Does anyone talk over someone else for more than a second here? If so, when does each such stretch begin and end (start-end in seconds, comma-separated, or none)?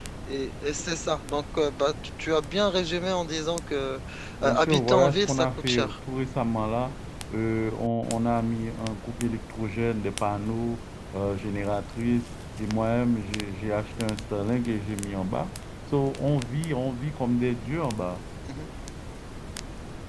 4.4-6.0